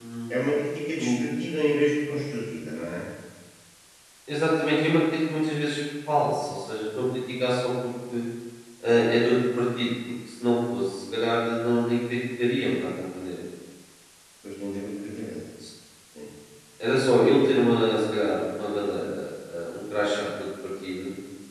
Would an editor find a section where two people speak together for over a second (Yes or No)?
No